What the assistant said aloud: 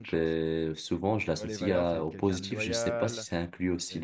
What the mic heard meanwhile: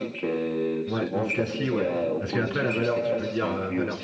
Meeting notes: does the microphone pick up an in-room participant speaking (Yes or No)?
Yes